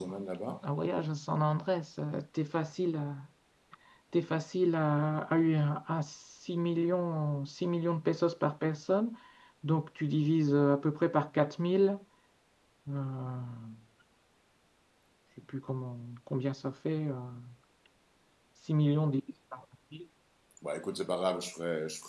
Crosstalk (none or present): none